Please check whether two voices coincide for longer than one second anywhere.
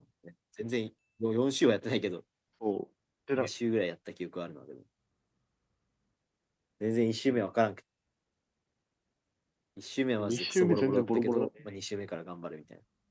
Yes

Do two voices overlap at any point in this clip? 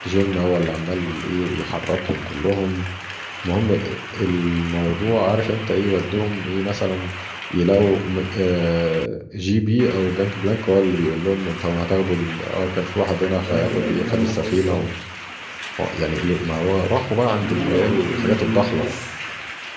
Yes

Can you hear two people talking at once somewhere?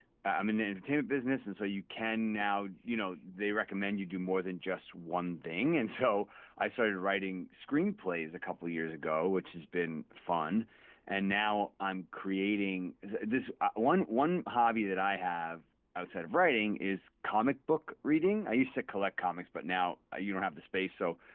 No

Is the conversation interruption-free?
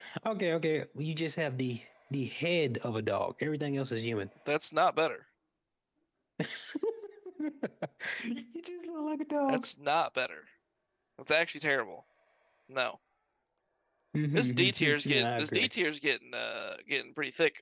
No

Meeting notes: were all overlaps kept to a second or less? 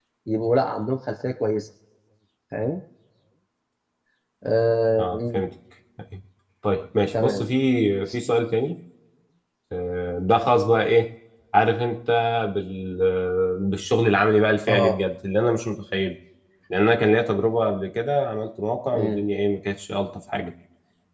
Yes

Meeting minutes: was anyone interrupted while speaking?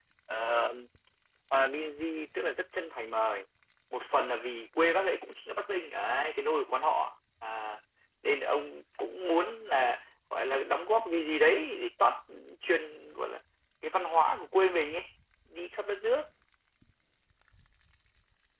No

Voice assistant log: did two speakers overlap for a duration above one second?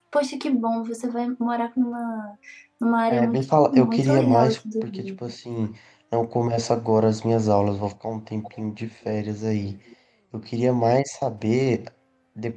Yes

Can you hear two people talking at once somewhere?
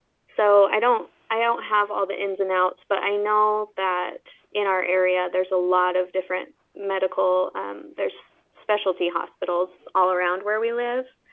No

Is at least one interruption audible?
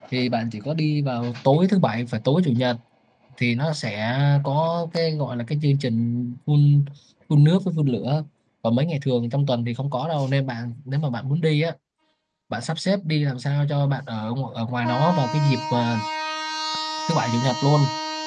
No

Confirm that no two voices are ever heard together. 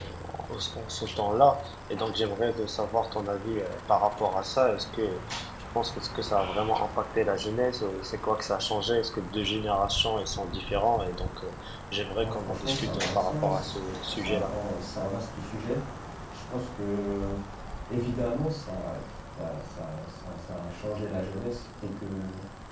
No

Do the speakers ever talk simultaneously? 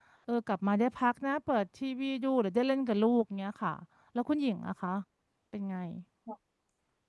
No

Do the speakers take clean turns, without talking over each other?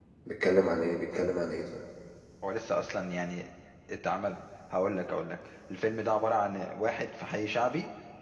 Yes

